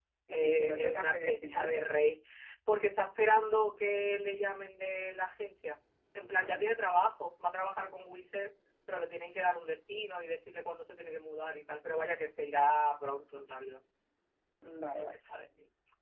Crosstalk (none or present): present